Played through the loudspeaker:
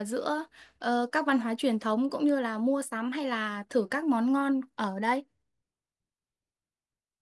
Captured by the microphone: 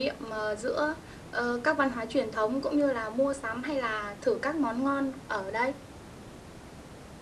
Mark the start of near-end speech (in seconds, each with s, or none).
none